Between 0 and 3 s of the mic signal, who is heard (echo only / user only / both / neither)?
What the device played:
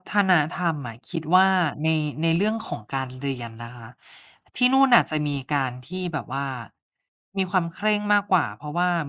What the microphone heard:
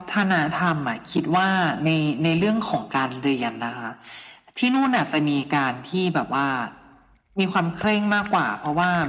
echo only